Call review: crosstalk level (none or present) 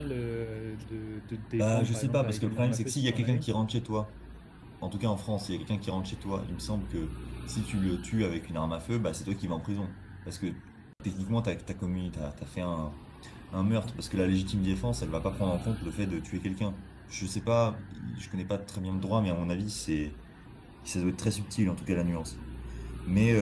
present